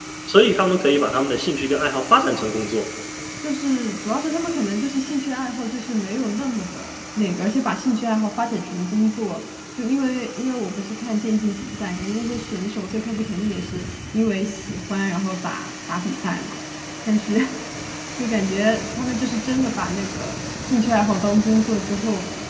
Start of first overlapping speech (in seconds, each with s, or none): none